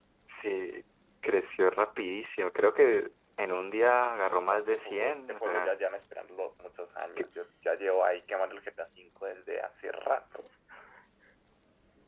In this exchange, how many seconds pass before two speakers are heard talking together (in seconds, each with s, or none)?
4.5 s